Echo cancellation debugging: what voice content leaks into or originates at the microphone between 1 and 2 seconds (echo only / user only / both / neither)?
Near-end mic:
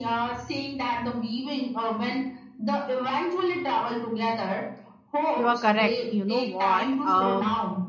echo only